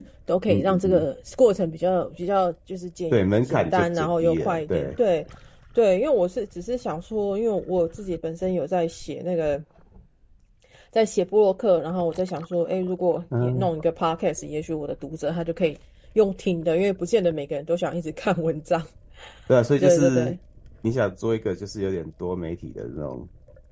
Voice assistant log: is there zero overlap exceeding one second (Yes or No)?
No